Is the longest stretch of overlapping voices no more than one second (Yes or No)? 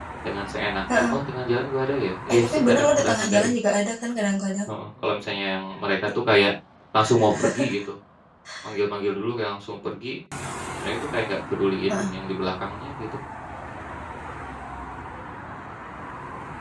No